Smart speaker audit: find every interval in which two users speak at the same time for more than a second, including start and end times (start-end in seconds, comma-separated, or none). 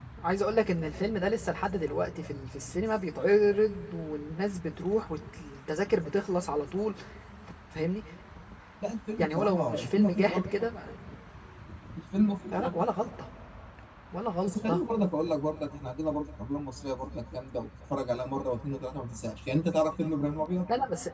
9.2-10.4